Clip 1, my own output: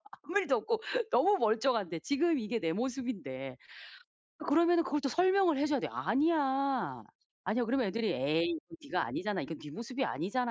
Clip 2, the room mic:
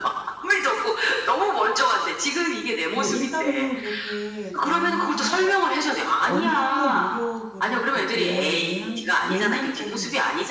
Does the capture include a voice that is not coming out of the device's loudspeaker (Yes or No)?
Yes